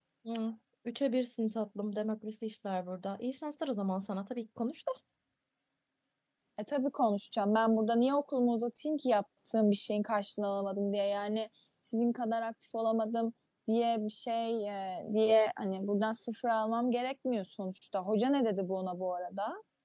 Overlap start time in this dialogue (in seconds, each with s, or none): none